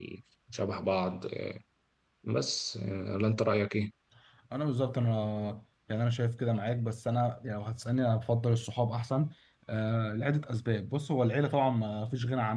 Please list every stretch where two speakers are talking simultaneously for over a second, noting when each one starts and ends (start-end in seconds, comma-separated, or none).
none